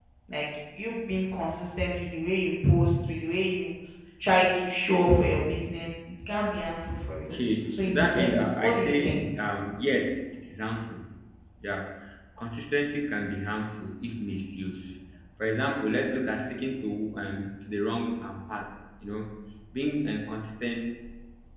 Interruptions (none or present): present